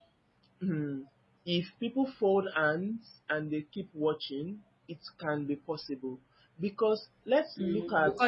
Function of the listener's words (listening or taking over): taking over